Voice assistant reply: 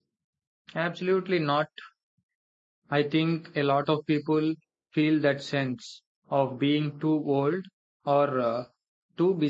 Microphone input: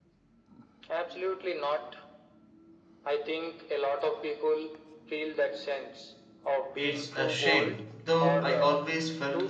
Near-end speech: present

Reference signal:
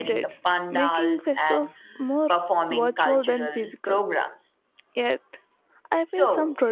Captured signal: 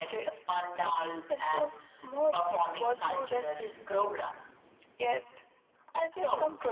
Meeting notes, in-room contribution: none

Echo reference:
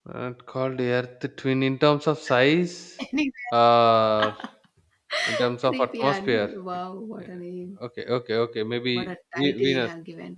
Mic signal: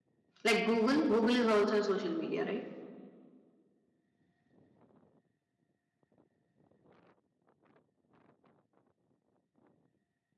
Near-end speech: present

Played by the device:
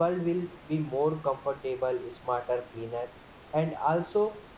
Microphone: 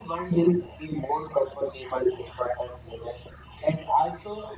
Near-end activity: none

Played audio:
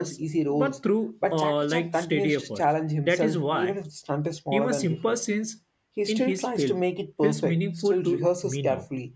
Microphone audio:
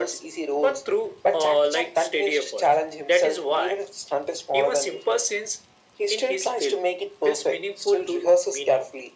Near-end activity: none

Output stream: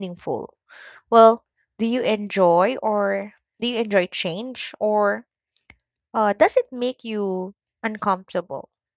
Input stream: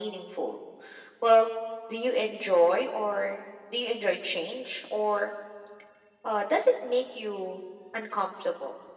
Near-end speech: none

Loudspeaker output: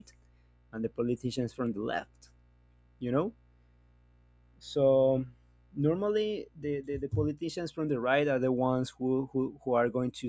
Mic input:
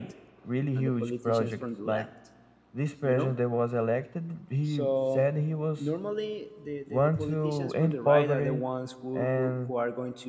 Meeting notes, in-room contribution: present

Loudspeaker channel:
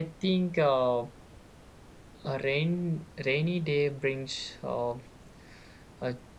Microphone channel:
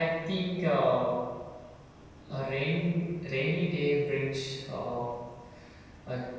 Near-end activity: none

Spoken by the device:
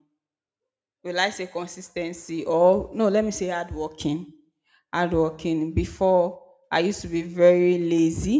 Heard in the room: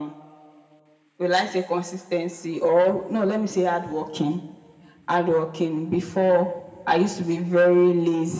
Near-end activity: none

